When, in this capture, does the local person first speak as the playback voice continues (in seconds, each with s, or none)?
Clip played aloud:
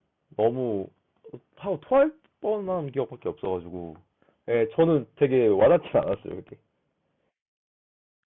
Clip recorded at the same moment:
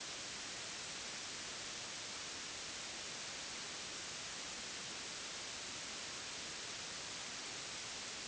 none